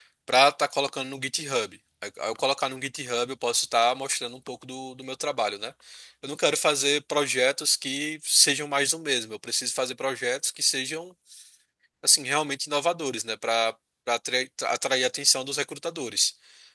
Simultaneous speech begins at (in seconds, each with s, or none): none